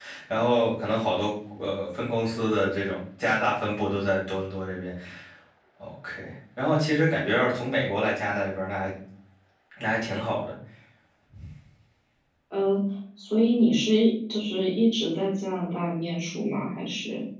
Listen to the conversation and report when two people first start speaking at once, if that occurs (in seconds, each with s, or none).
none